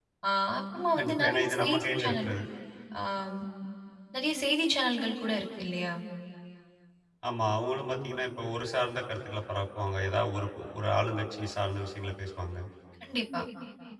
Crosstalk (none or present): present